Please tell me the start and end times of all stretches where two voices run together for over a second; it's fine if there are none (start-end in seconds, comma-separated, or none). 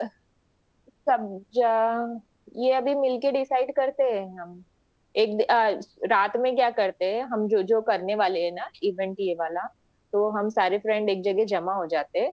none